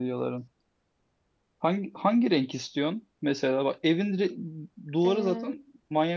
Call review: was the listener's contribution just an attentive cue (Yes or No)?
Yes